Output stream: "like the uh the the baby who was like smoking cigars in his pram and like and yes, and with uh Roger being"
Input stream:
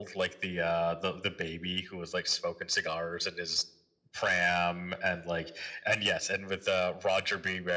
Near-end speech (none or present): none